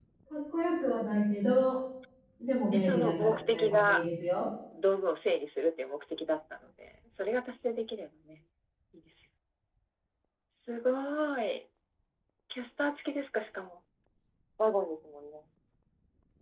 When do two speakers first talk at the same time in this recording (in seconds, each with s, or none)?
2.7 s